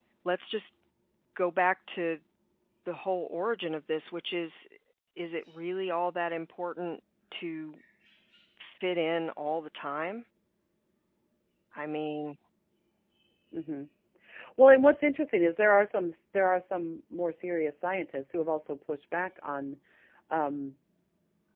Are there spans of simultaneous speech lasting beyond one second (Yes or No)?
No